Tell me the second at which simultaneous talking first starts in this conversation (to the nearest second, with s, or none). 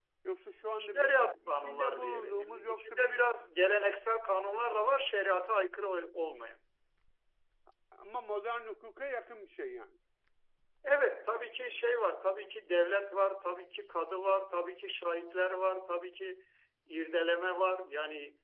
1 s